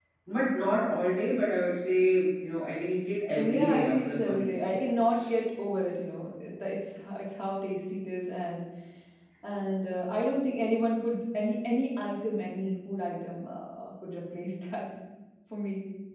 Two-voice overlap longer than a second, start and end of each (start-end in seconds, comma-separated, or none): 3.4-4.6